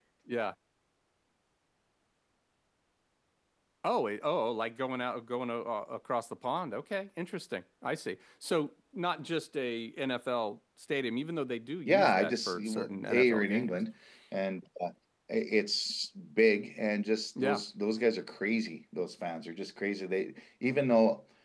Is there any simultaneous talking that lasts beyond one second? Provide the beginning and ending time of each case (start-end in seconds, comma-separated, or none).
11.8-13.8